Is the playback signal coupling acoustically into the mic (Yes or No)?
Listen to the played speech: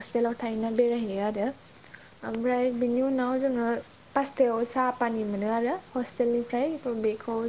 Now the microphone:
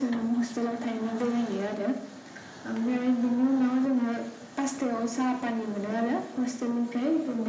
Yes